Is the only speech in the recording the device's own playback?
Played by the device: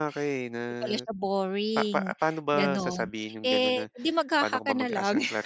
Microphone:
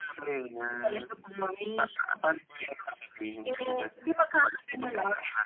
Yes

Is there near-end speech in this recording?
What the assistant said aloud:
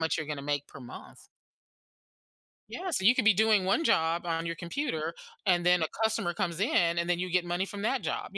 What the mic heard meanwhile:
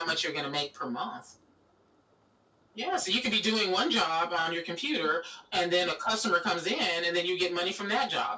No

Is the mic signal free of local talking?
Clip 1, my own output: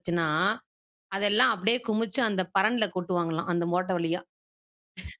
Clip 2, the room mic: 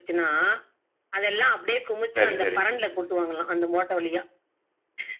No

